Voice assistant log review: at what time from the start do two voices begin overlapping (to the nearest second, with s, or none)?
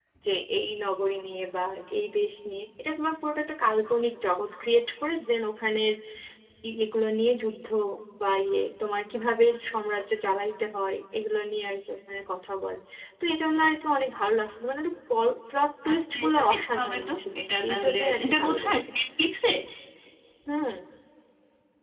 16 s